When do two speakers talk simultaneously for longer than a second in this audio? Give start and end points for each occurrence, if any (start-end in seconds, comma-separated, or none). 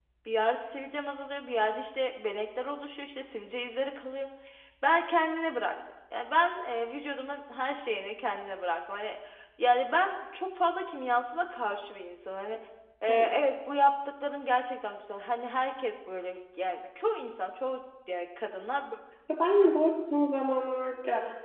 none